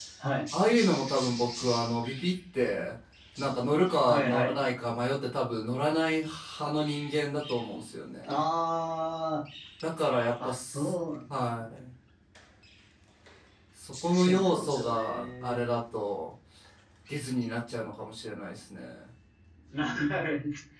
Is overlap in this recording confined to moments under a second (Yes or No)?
No